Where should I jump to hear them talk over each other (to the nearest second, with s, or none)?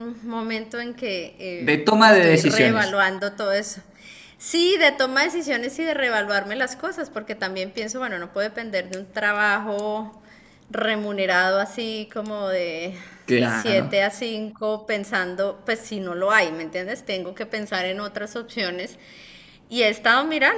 2 s